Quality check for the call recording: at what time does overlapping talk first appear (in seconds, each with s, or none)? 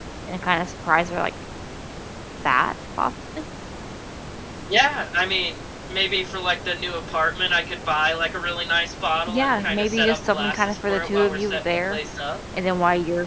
9.3 s